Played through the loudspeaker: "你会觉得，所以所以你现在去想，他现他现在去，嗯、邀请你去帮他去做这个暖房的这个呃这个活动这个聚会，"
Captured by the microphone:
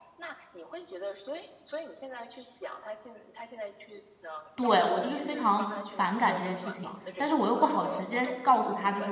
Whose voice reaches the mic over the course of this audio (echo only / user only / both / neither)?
both